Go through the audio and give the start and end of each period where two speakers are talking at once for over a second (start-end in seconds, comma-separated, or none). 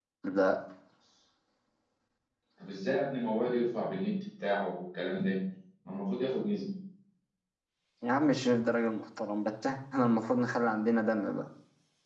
none